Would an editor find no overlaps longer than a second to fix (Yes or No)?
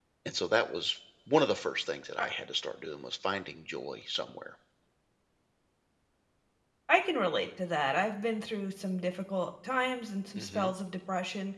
Yes